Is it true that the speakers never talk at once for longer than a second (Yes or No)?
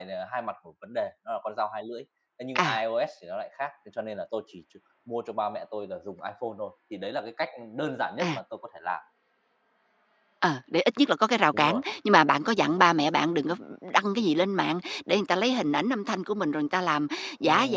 Yes